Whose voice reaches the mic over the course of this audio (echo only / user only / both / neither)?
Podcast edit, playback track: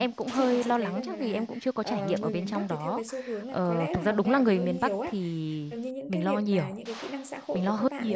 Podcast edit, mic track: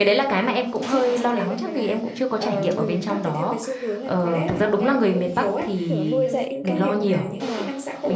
both